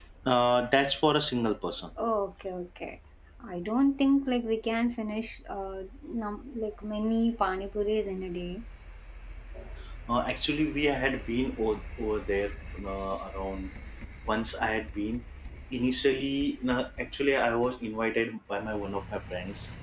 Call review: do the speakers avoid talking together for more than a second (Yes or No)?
Yes